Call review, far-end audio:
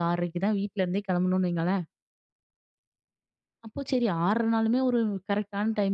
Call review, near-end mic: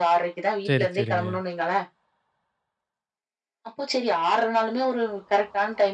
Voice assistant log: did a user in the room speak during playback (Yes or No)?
Yes